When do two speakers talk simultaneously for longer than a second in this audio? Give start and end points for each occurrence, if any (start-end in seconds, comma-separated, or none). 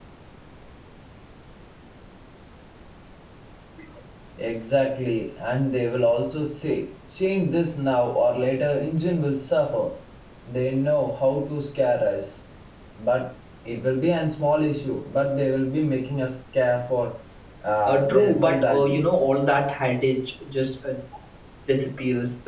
17.8-19.2